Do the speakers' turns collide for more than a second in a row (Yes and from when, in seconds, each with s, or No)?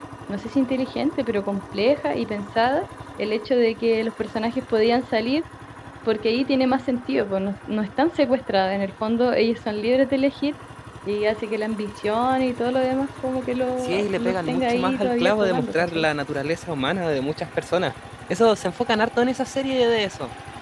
Yes, from 13.8 s